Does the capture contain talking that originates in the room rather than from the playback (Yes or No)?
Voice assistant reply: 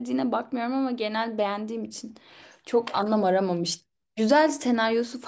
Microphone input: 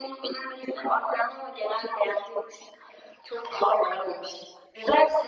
No